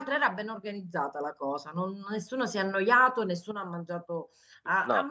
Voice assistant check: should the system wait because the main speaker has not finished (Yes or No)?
Yes